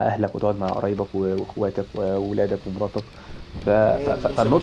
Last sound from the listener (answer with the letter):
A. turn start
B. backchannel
A